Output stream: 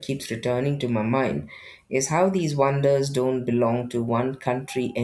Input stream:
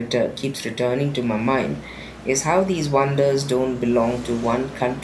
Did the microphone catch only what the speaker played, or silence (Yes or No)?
Yes